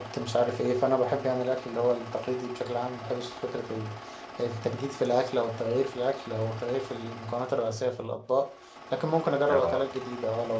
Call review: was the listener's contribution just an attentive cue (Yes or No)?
Yes